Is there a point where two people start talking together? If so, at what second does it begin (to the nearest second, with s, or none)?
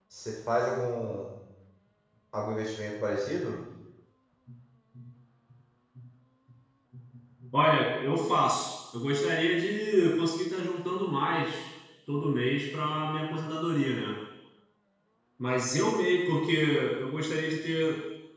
none